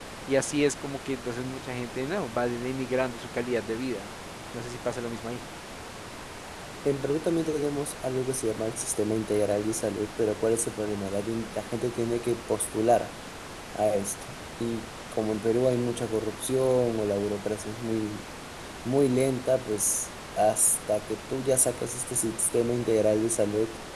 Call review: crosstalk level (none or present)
none